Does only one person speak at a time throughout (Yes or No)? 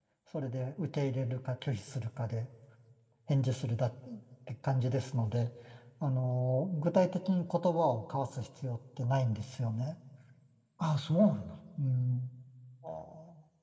Yes